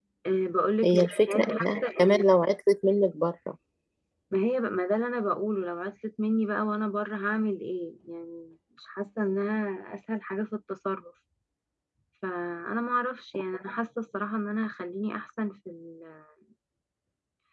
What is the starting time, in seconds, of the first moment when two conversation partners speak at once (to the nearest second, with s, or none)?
1 s